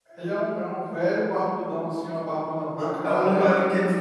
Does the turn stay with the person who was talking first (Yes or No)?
No